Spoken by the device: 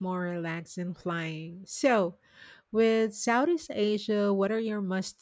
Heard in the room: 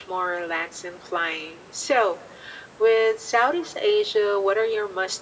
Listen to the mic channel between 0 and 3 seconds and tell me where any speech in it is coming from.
echo only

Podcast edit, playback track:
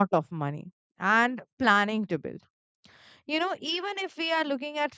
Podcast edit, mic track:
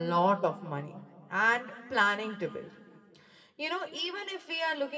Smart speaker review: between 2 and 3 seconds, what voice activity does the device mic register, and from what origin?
echo only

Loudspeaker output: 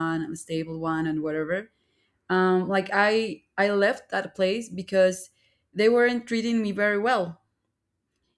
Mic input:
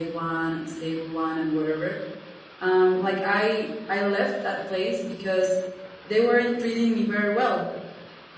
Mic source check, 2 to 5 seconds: echo only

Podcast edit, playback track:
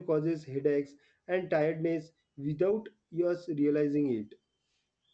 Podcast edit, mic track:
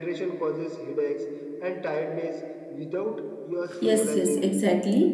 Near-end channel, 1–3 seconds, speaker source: echo only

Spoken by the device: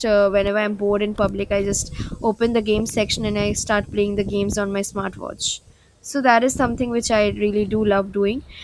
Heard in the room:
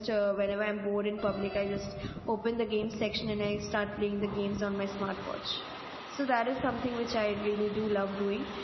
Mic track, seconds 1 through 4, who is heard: echo only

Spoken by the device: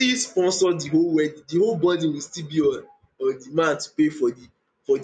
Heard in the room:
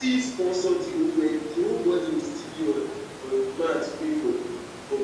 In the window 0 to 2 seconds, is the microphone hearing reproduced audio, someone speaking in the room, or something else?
echo only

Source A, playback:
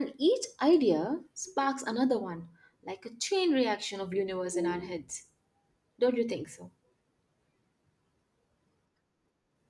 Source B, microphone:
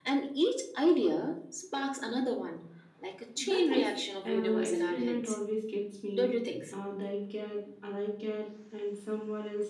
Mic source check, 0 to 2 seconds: echo only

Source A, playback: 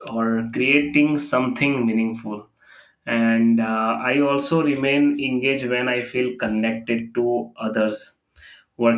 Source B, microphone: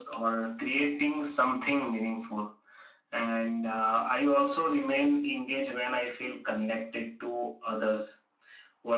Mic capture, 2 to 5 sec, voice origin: echo only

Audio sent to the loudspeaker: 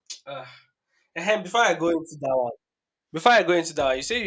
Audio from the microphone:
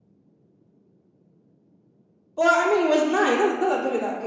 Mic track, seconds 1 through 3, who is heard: user only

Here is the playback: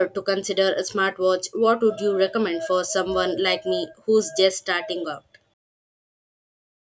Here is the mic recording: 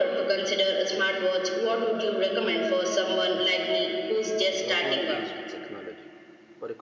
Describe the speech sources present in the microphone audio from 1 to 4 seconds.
echo only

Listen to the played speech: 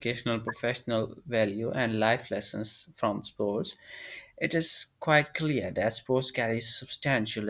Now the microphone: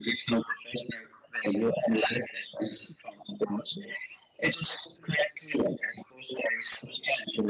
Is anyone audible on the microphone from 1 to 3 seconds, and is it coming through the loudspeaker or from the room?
echo only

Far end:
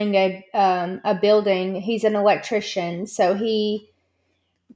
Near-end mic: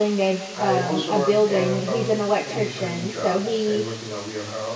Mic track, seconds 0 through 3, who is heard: both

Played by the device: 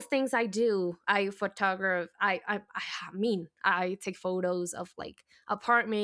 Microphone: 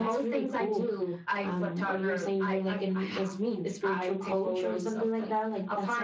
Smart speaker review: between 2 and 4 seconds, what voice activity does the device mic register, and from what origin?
both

